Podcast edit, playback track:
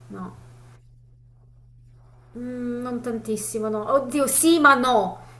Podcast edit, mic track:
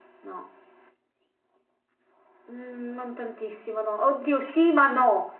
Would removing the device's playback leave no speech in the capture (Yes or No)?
Yes